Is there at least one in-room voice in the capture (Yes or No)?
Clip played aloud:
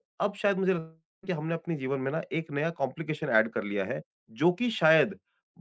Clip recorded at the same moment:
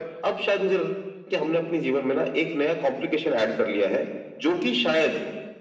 No